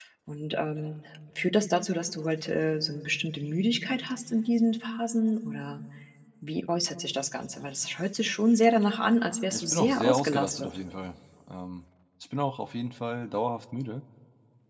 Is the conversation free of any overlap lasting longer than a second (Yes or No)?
No